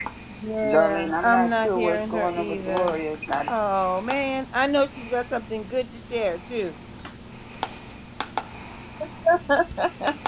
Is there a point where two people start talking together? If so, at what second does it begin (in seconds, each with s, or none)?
0.6 s